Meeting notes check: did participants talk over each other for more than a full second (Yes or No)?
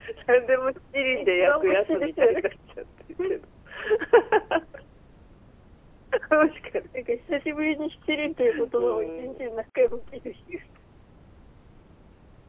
Yes